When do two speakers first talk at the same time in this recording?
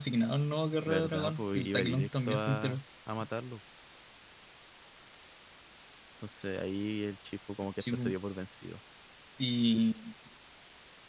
0.8 s

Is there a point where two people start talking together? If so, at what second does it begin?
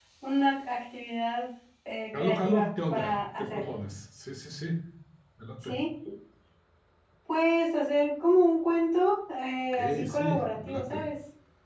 2.1 s

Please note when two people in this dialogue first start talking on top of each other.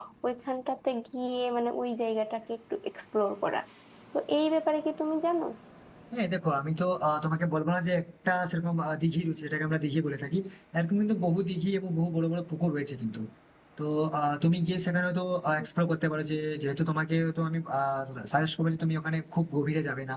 none

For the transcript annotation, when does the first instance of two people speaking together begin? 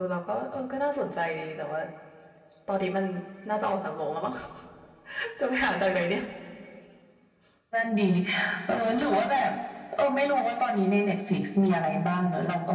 none

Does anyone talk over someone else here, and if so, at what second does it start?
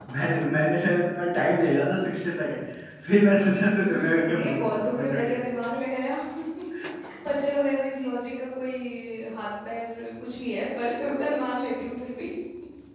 3.7 s

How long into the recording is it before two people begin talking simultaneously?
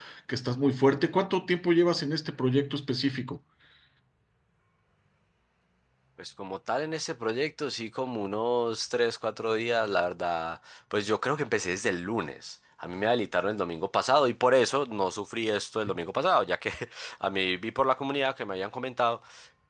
none

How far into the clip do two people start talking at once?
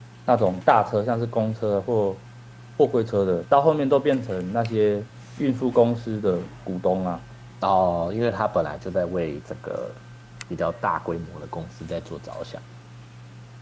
none

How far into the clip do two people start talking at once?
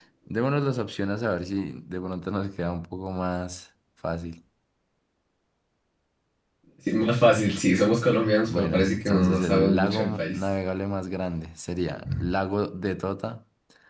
8.5 s

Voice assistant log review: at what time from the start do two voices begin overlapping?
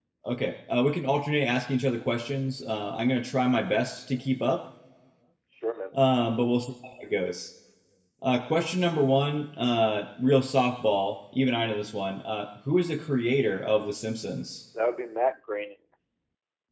none

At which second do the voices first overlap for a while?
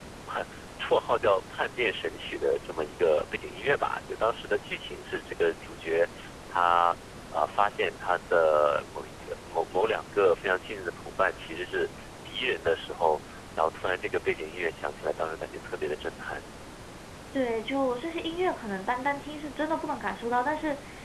none

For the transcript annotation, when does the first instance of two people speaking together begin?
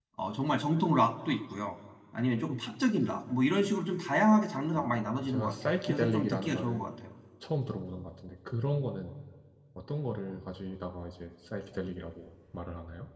4.6 s

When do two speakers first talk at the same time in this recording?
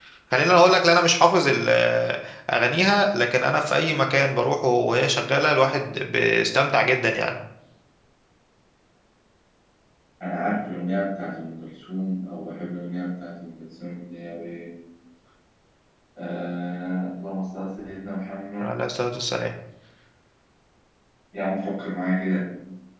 none

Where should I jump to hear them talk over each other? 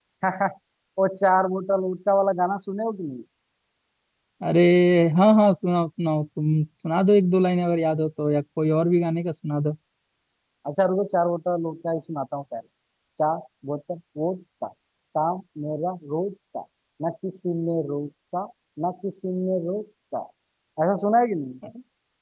none

